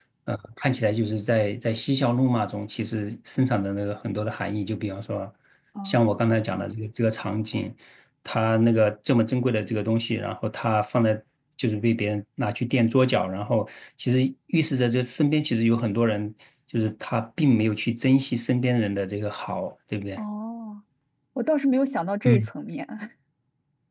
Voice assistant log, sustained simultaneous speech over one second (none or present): none